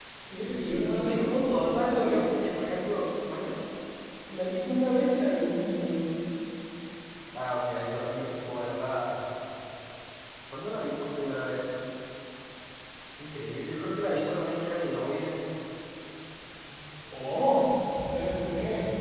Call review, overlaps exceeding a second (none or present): present